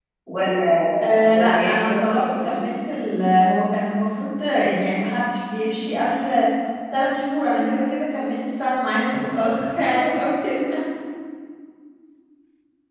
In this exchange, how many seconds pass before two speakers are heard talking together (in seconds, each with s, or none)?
1.3 s